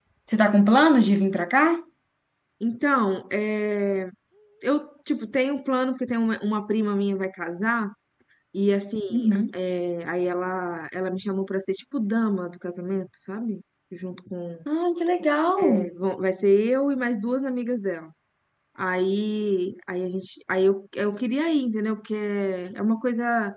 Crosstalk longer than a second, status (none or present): none